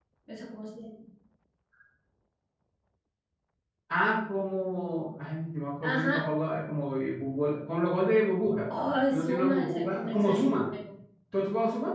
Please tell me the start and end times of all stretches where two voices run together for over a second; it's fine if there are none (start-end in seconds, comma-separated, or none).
9.1-10.7